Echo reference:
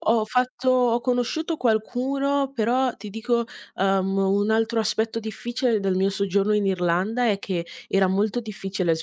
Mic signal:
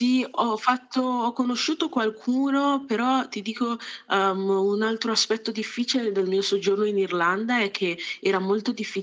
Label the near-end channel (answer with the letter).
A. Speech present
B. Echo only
B